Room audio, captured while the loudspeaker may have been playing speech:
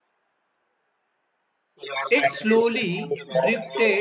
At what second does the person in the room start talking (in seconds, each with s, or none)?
2.1 s